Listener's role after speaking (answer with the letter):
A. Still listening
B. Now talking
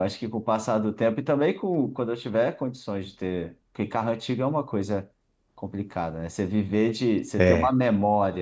A